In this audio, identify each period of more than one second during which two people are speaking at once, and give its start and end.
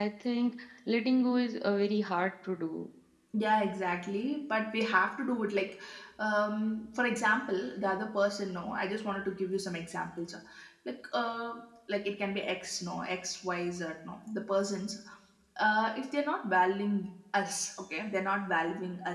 none

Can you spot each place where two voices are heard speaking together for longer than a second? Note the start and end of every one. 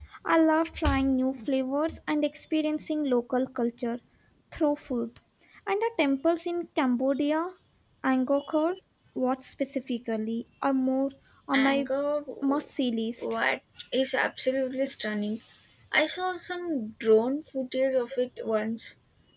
none

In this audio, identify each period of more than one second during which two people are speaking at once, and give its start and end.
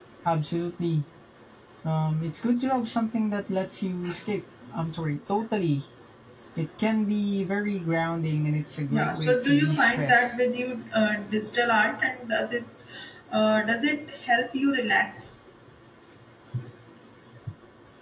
8.9-10.3

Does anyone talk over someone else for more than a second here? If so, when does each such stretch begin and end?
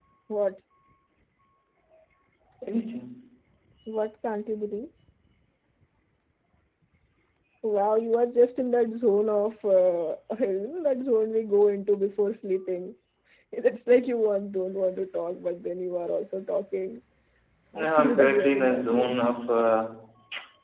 17.8-19.1

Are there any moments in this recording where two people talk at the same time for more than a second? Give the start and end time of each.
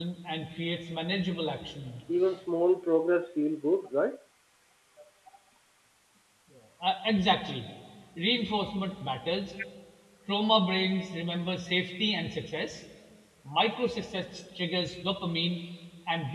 none

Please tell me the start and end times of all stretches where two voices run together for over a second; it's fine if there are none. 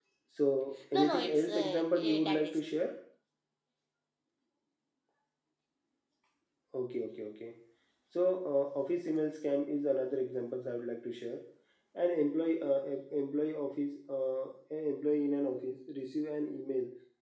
0.9-2.5

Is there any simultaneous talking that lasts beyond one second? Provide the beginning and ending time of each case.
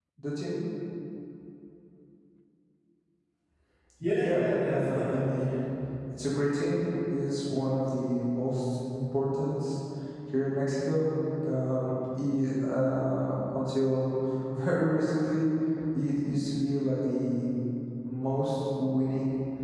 4.2-5.5

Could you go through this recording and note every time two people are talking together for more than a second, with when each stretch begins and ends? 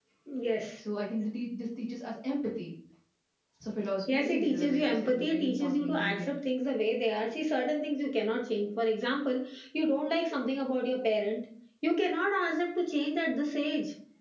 4.1-6.3

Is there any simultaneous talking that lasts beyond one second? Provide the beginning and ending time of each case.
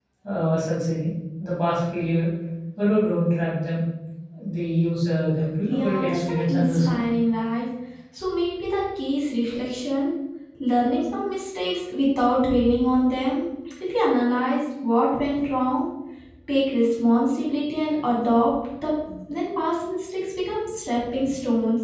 5.7-7.0

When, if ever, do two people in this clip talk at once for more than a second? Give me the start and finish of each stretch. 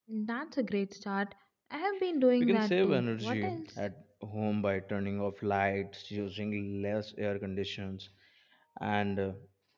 2.4-3.8

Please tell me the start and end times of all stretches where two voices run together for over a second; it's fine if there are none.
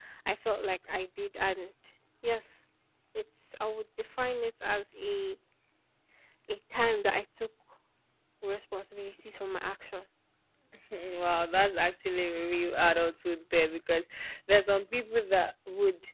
none

